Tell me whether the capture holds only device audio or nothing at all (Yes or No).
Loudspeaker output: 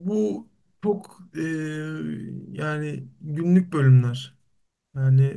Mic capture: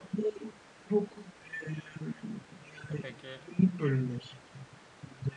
No